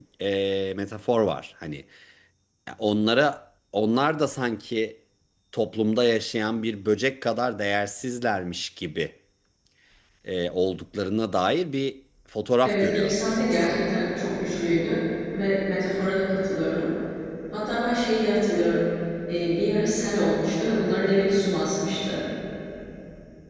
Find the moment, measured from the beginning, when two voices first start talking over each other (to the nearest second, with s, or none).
13 s